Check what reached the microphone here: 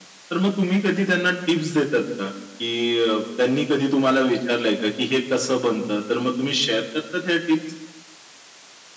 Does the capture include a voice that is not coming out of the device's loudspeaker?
No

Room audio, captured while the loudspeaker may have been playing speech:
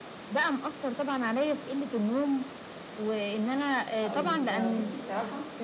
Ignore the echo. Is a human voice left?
Yes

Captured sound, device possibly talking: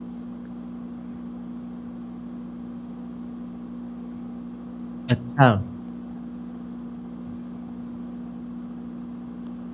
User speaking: Yes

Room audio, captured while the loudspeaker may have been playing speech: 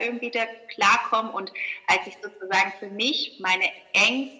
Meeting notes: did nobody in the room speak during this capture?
Yes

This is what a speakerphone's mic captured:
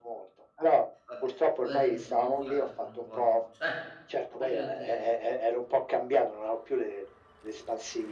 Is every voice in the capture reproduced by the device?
No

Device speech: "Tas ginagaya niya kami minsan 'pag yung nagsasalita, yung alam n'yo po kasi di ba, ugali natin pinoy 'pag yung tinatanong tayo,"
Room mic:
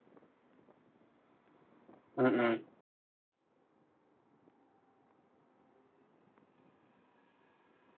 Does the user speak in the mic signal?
Yes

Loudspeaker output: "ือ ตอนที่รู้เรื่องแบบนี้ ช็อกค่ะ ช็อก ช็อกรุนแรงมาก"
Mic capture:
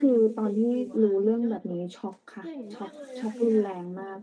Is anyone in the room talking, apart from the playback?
Yes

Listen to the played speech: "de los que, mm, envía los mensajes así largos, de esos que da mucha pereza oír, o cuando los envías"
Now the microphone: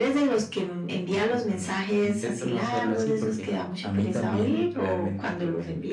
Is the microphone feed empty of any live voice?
No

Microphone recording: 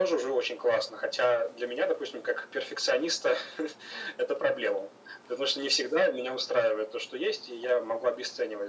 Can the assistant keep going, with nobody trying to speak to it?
Yes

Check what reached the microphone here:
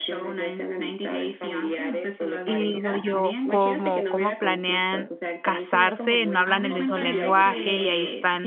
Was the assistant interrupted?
Yes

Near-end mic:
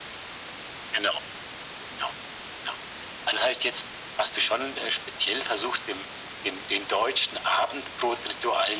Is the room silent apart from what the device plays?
Yes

